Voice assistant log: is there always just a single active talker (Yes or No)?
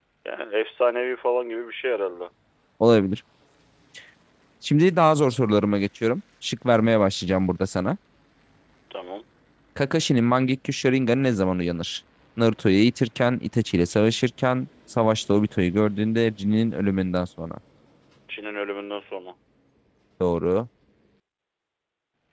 Yes